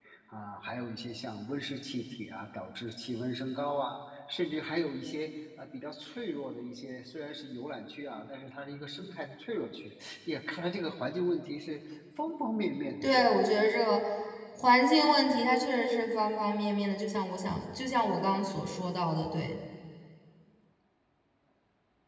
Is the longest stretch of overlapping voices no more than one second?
Yes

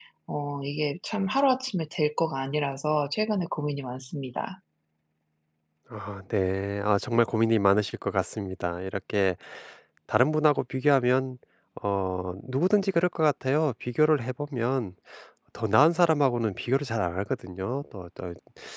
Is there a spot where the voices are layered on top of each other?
No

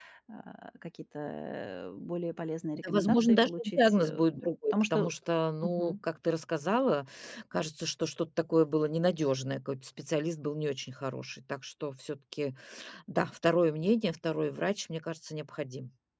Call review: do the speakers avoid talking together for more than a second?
No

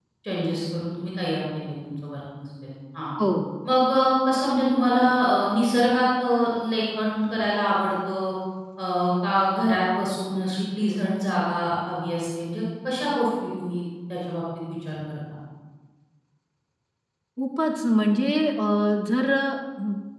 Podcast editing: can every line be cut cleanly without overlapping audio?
Yes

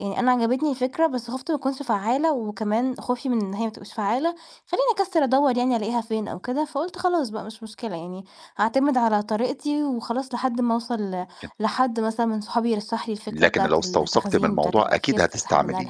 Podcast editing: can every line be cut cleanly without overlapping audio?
No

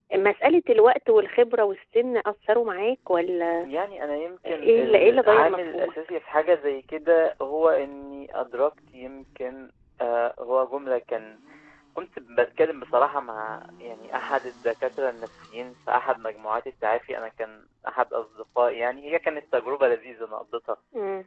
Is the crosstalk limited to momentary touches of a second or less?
No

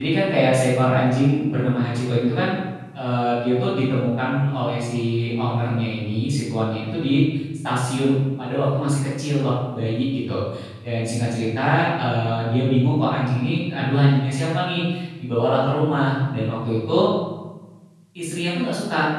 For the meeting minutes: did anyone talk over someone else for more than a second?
No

